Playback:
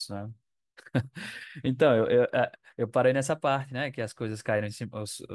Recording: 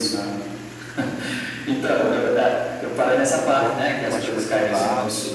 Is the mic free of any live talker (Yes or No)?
No